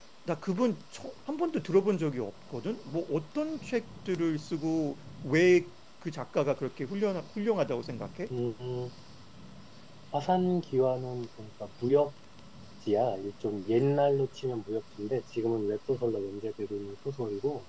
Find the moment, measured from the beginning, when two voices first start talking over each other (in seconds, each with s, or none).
none